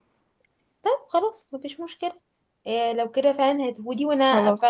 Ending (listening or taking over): listening